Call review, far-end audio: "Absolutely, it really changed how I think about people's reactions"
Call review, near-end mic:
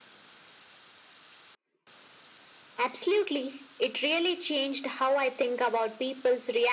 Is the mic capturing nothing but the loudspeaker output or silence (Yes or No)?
Yes